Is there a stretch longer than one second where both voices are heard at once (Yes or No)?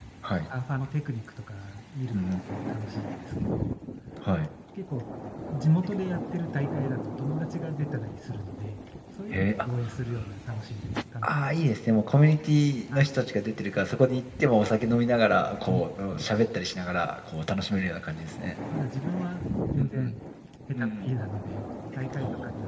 No